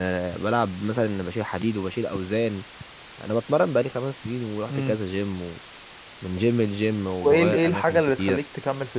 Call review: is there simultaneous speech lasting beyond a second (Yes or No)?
Yes